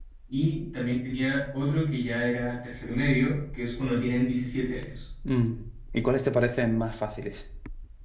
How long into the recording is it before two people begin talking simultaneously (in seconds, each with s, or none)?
none